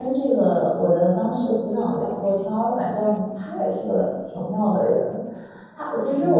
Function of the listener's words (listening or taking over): listening